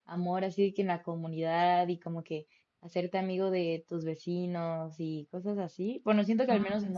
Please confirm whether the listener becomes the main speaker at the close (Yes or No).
No